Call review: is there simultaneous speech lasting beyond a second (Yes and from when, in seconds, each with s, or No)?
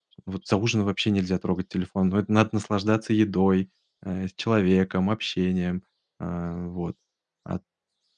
No